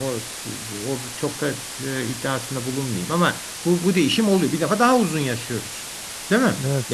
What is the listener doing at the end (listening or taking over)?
taking over